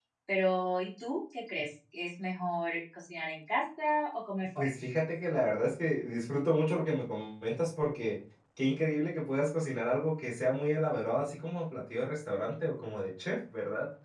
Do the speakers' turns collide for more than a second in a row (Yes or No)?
No